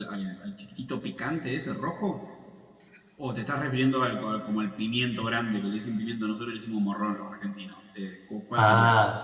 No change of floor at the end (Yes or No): No